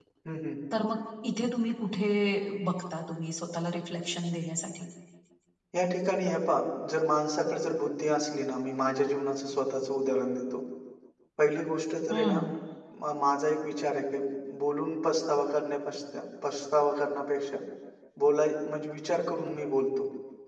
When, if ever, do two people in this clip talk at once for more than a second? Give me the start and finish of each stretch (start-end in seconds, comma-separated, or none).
none